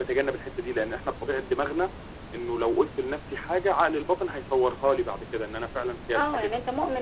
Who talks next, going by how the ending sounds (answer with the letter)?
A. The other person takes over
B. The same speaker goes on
A